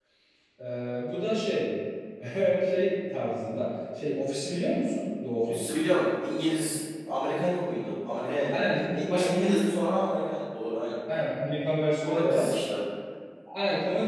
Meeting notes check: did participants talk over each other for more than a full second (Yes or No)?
Yes